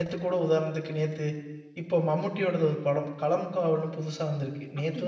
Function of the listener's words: listening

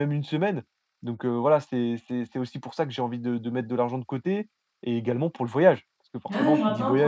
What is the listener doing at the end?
taking over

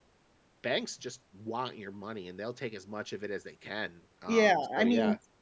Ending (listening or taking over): taking over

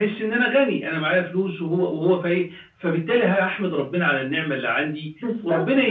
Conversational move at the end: listening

